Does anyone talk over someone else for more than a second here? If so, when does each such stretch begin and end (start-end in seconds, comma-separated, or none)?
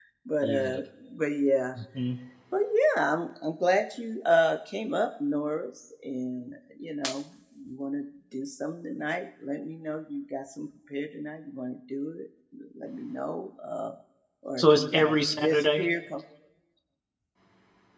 14.6-15.9